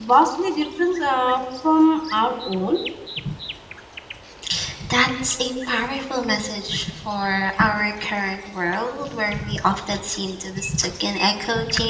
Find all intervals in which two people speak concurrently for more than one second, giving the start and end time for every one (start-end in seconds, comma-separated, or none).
none